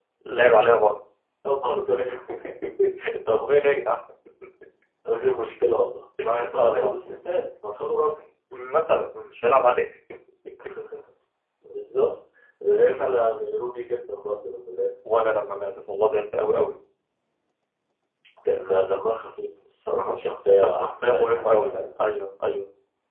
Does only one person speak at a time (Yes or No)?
No